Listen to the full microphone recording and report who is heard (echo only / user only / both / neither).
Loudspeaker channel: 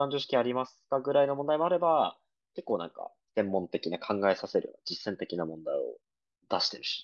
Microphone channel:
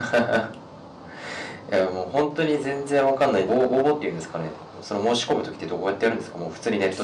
user only